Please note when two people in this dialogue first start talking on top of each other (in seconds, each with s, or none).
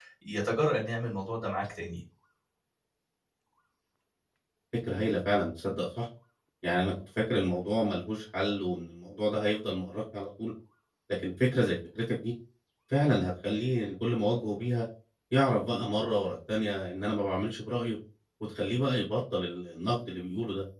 none